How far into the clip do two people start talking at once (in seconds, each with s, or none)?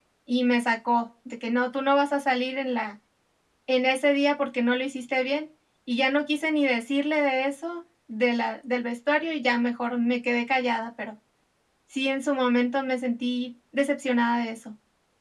none